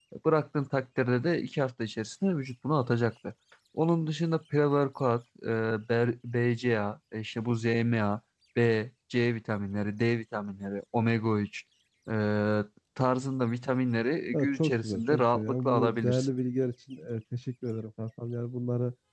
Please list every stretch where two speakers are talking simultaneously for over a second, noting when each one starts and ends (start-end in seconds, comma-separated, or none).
14.3-16.3